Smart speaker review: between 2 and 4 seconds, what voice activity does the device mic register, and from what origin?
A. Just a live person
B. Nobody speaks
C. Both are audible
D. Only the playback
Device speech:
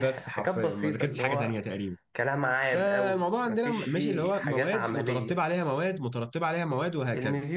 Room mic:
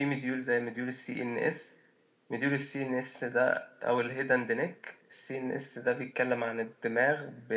A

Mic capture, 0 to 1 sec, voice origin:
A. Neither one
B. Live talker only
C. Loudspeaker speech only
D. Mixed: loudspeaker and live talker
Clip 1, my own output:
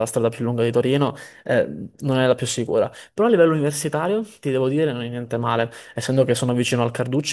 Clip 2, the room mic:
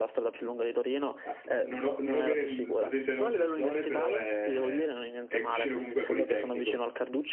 C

